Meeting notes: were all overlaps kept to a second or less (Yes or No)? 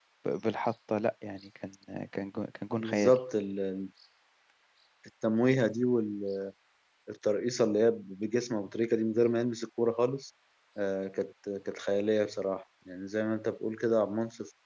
Yes